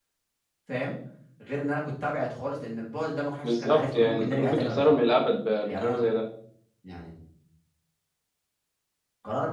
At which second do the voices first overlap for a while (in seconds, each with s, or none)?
3.4 s